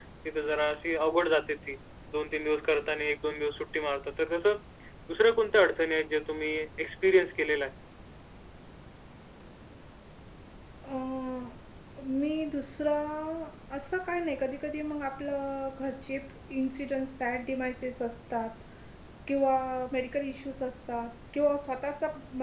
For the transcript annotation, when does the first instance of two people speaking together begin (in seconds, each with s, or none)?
none